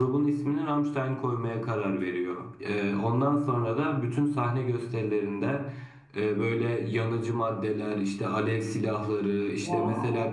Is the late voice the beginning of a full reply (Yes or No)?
No